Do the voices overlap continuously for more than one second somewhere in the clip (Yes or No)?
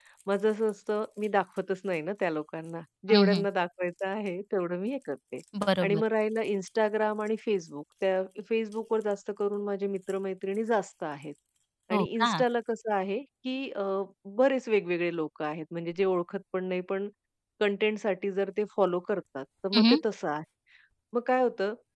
No